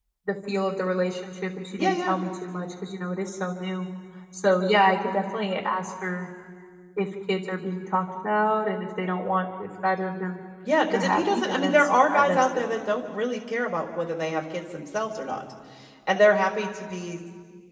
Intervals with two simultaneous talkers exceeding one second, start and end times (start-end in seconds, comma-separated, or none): 10.9-12.7